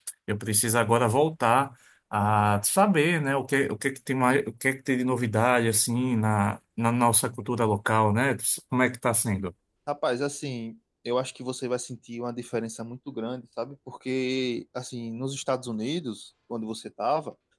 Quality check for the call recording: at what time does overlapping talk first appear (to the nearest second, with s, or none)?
none